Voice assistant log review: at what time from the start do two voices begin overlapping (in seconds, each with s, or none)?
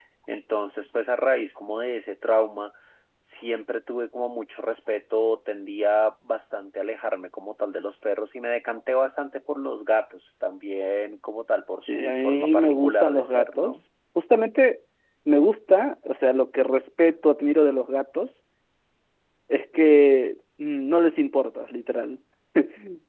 11.8 s